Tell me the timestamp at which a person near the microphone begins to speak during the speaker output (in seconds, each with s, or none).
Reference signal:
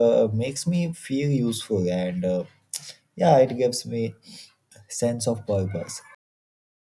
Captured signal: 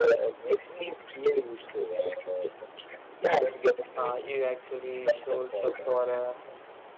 4.0 s